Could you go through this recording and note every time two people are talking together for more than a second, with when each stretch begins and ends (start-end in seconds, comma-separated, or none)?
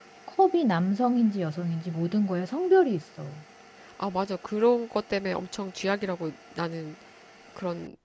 none